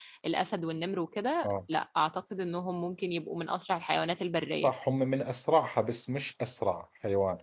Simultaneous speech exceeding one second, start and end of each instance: none

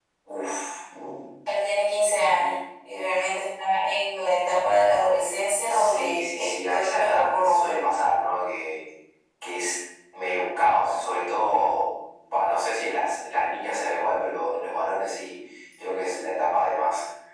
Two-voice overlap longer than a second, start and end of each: 5.7-7.8

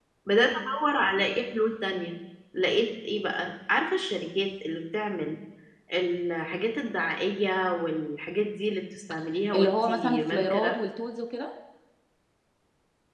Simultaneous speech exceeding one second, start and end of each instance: 9.5-10.8

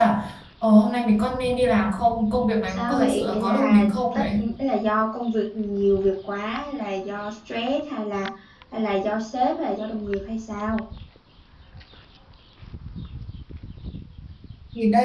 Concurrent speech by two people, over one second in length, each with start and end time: 2.7-4.2

